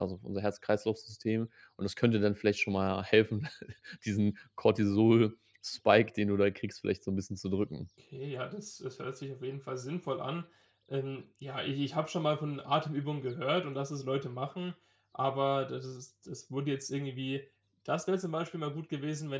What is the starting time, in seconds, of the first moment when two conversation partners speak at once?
none

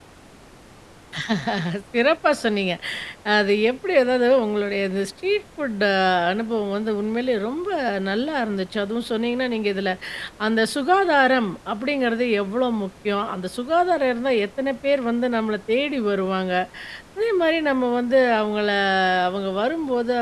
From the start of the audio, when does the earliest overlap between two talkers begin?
none

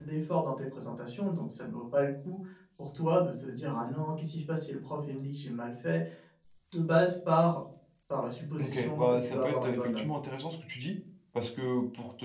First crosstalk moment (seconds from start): 8.6 s

